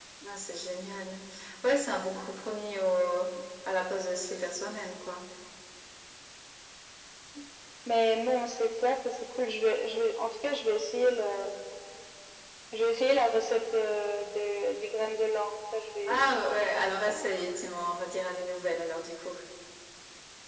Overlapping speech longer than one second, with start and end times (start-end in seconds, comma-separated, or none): 16.1-17.3